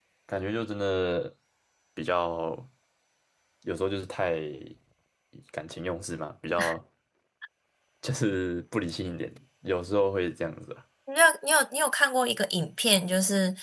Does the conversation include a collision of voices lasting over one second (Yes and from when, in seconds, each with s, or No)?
No